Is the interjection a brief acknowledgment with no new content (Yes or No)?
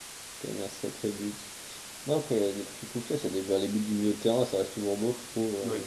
No